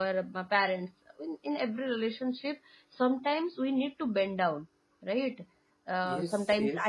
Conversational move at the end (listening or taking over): listening